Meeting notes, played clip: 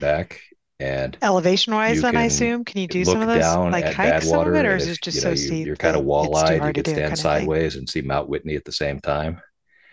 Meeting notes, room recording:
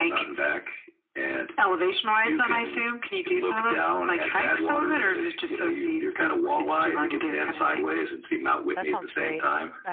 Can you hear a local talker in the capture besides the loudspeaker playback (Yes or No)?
Yes